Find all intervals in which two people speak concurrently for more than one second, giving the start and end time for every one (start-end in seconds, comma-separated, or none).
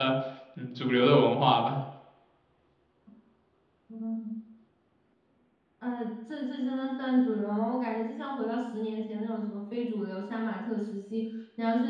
none